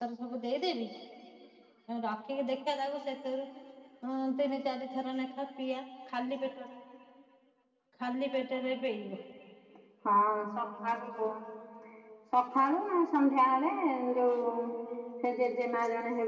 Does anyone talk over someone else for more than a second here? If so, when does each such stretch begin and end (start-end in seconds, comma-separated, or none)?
none